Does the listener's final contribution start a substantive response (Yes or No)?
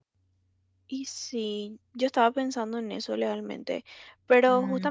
No